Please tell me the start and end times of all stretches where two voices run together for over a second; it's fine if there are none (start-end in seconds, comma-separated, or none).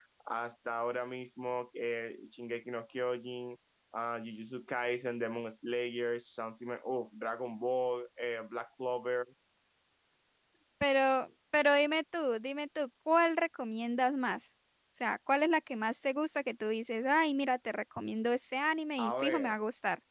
none